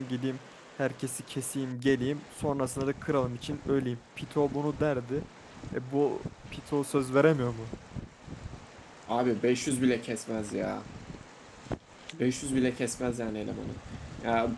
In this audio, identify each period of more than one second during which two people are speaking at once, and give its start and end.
none

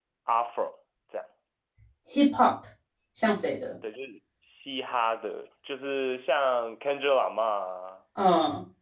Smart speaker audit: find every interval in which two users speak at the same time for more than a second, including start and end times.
none

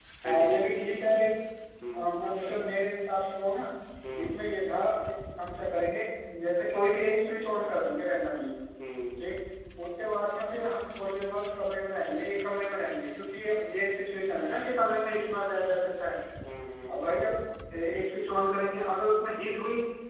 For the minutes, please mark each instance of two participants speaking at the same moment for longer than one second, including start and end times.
none

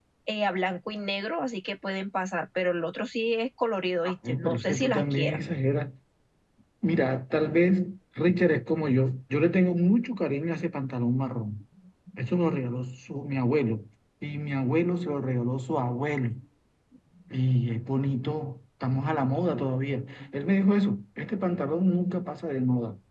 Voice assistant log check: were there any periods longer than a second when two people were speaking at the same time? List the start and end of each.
4.0-5.4

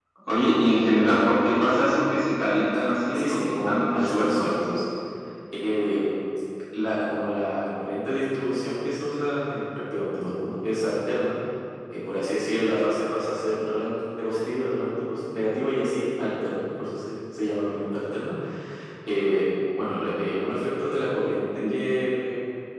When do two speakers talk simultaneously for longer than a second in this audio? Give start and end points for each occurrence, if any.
3.1-4.5

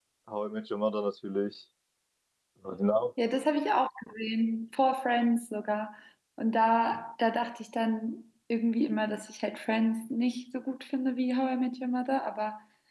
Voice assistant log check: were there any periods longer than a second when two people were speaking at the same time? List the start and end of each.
none

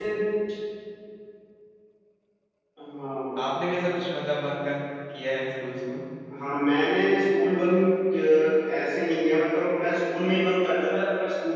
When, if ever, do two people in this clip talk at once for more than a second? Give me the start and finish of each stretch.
none

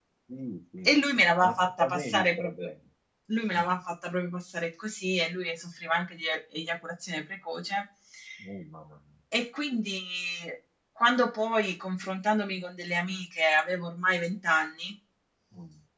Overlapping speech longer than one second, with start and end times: 0.8-2.7

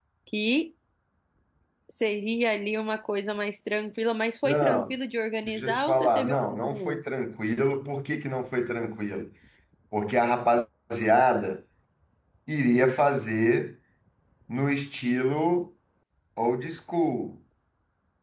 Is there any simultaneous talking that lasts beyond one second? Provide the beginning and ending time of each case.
5.5-7.0

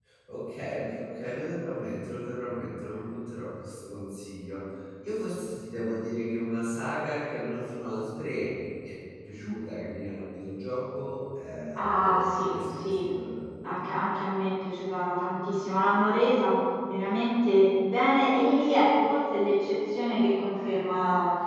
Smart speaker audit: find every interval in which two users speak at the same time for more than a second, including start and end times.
11.7-13.0

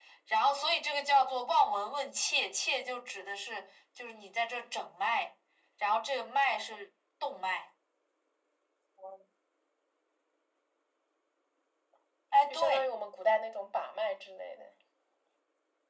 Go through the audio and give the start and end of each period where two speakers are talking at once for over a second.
none

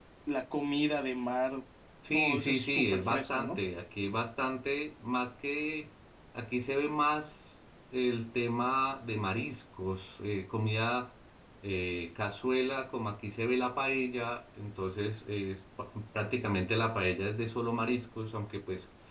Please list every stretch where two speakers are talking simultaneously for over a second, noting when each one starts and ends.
2.1-3.6

